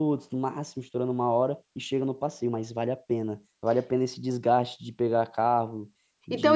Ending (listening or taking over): taking over